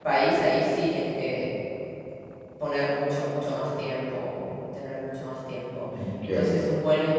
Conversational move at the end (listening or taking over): listening